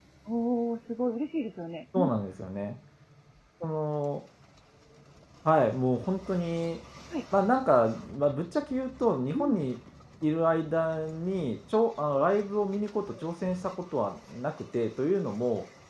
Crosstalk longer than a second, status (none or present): none